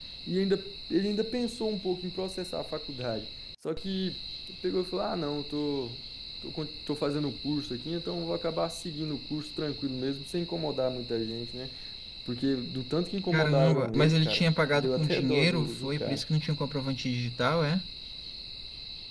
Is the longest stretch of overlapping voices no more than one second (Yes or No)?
No